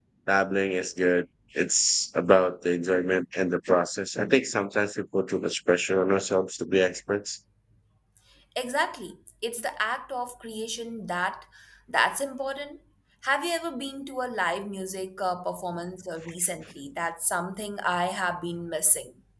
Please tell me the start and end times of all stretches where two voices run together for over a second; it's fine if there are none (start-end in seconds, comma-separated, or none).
none